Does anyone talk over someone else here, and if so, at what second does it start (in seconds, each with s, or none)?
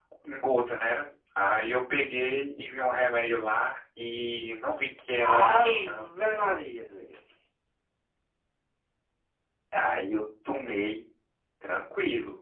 5.2 s